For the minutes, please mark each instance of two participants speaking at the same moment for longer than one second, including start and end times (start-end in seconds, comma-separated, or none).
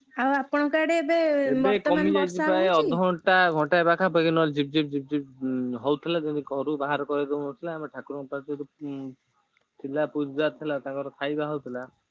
1.7-2.9